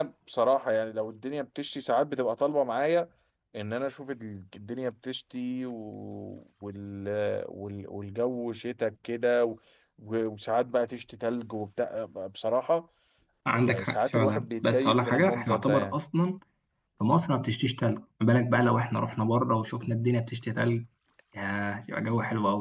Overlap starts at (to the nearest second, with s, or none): 14 s